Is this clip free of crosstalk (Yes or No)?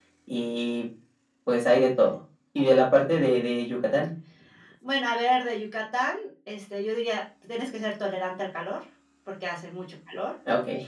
Yes